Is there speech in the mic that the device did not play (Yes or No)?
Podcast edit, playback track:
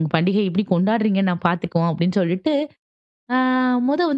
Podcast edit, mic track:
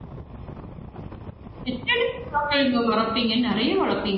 Yes